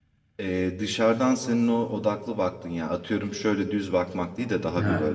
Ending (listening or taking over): listening